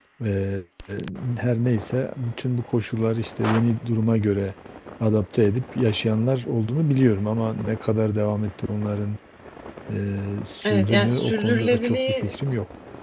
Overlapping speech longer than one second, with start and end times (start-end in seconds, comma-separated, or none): 10.6-12.3